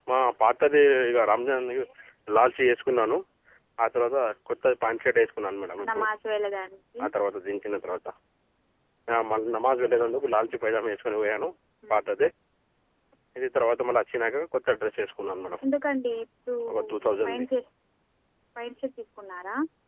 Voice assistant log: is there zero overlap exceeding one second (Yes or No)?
Yes